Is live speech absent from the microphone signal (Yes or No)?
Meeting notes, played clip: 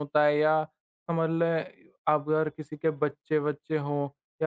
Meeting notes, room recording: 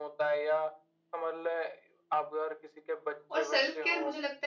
No